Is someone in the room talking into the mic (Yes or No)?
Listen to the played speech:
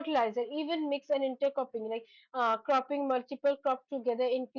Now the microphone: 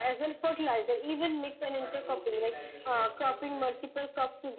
Yes